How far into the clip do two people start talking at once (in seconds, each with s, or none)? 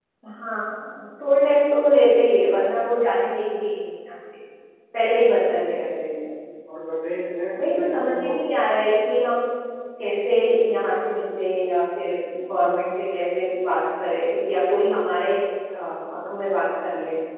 7.6 s